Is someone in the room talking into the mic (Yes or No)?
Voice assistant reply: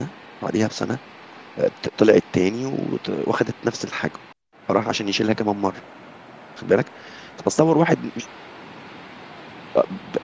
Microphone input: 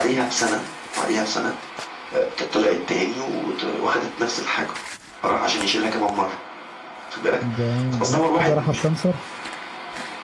Yes